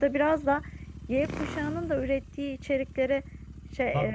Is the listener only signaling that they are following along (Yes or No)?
Yes